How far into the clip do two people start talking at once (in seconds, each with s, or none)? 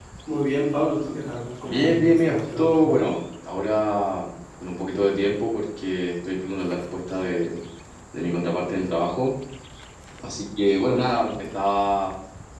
1.6 s